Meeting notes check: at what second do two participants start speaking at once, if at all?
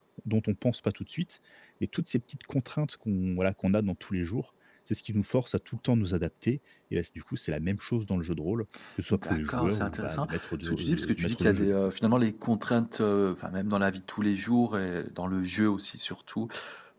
9 s

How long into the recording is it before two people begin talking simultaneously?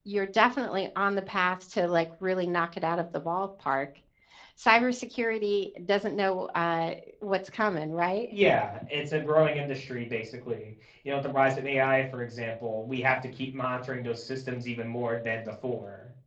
none

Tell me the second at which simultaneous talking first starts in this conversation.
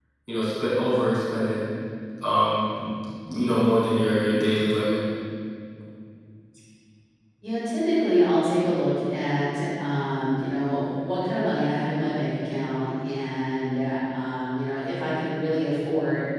none

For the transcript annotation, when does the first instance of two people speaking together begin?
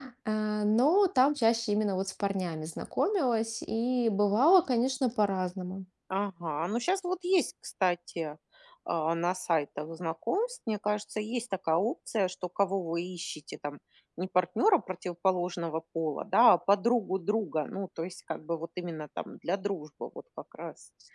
none

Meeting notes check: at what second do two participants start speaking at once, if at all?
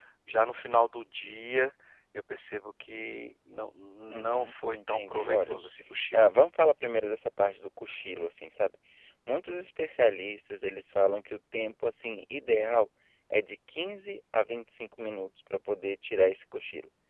4 s

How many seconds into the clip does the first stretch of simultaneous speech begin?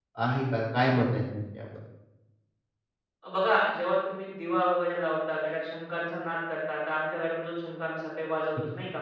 none

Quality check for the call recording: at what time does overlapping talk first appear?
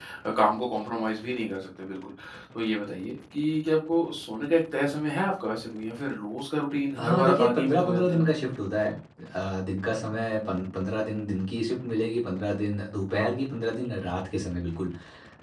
7 s

